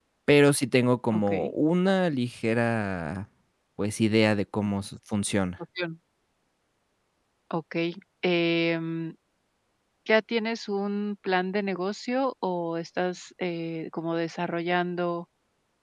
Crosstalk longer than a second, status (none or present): none